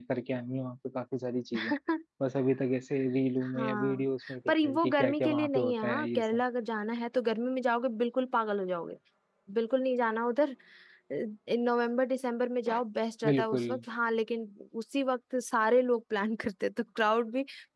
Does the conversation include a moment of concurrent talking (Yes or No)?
Yes